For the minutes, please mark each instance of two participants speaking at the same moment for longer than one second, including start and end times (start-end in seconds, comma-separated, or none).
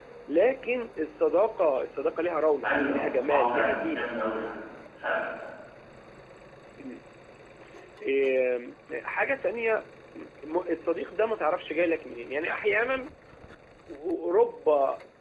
2.6-4.1